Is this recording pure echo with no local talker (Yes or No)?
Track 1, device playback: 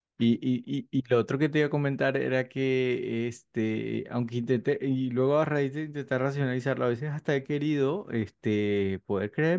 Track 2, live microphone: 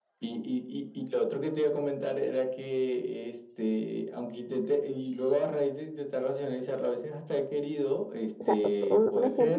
No